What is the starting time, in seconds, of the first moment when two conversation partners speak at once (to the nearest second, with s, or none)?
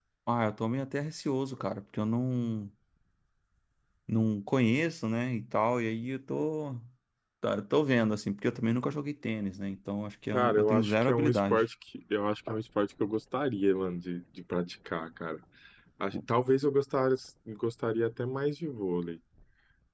10 s